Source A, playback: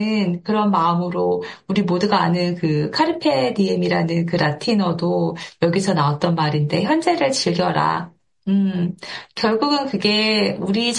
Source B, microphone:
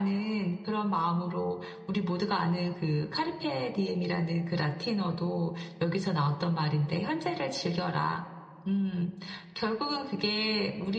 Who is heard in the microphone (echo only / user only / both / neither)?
echo only